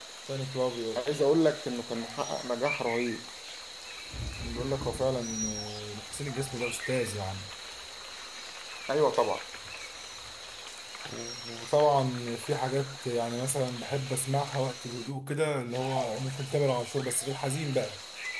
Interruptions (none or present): none